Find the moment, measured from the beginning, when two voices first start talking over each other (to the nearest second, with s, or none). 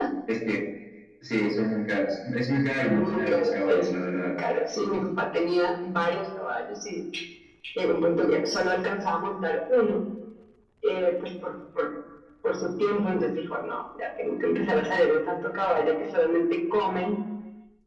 3 s